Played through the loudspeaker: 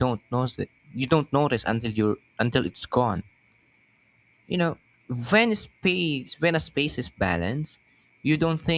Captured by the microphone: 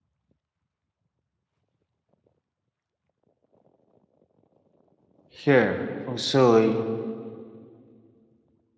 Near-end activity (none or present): present